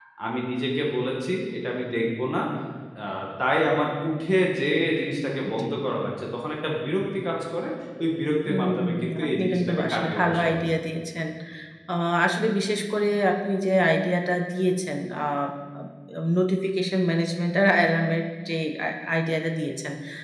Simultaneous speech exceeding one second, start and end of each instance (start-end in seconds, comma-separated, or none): 8.5-10.6